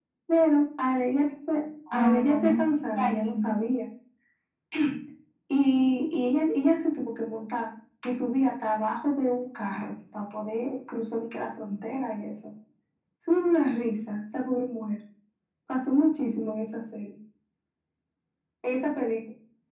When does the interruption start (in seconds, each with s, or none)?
1.9 s